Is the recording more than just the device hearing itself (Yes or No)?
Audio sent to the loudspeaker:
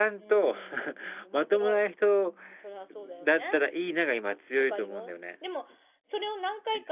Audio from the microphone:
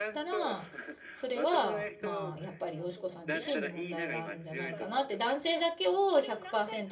Yes